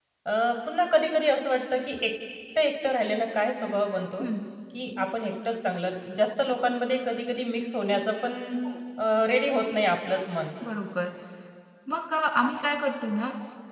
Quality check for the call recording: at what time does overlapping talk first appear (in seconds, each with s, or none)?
none